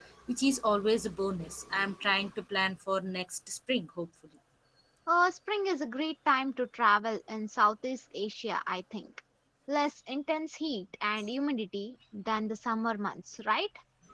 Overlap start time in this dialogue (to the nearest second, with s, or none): none